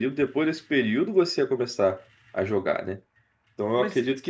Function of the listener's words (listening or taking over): listening